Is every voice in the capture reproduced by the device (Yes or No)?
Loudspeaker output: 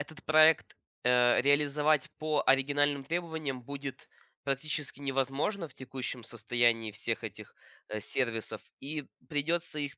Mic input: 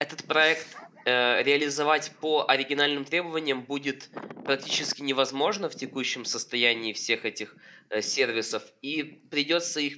Yes